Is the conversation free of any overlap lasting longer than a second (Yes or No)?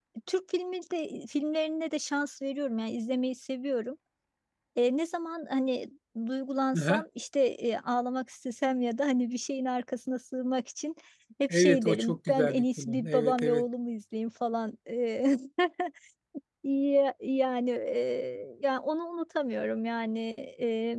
No